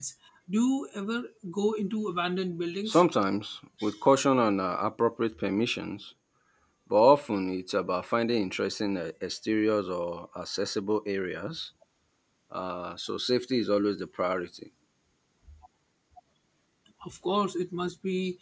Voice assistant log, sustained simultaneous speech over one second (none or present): none